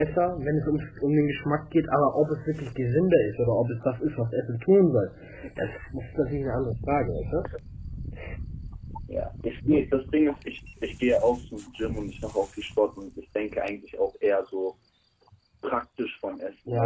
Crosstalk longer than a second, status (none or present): none